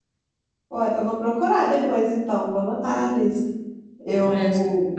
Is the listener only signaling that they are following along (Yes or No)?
No